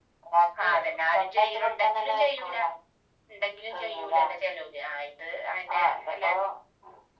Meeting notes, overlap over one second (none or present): present